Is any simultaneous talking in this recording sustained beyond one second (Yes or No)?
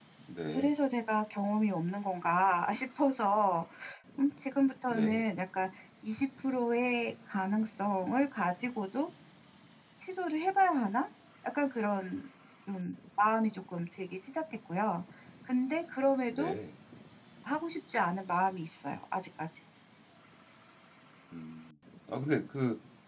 No